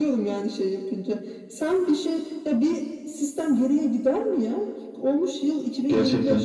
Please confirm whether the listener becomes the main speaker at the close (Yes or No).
No